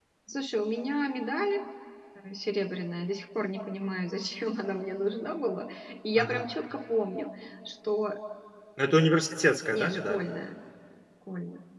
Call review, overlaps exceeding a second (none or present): none